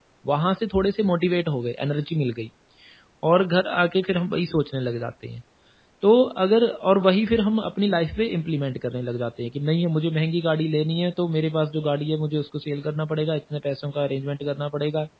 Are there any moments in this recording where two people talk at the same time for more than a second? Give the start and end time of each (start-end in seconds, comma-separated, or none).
none